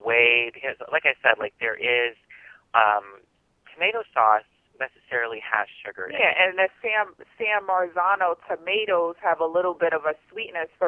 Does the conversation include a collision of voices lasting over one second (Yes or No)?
No